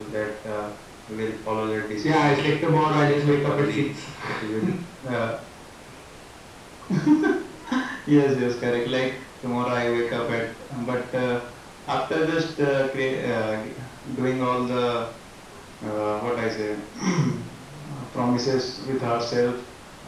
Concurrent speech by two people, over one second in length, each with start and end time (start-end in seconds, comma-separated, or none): 2.0-3.8